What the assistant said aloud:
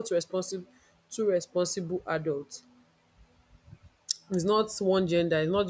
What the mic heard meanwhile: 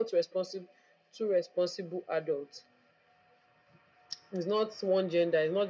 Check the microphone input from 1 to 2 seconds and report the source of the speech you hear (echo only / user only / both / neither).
echo only